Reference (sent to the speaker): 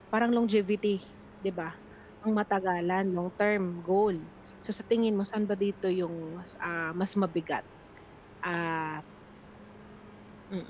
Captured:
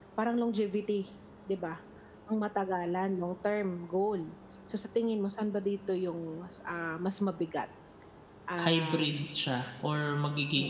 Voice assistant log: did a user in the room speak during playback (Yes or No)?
Yes